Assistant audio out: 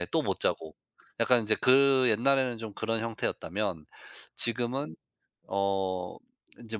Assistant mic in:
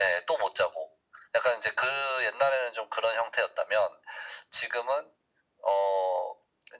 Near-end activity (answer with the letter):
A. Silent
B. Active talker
A